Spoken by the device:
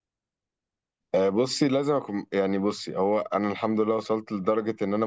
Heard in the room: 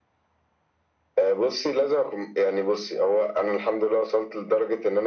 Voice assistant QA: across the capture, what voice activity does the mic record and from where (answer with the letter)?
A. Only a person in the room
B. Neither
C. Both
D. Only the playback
D